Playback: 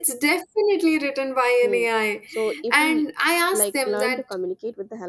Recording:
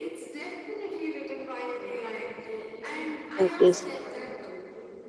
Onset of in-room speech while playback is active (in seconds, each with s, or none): 3.3 s